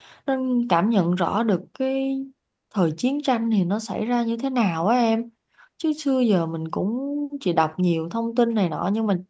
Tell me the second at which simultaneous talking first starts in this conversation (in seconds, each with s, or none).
none